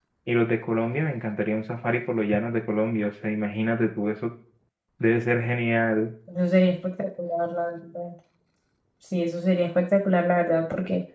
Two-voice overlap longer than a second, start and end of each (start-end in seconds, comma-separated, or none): none